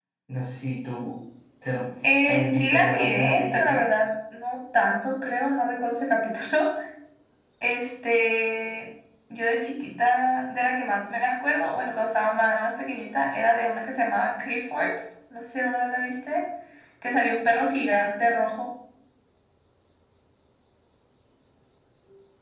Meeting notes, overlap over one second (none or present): present